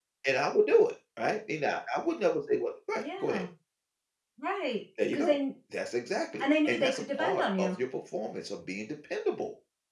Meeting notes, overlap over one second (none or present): present